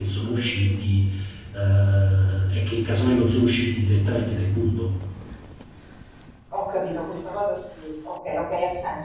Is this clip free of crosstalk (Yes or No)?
Yes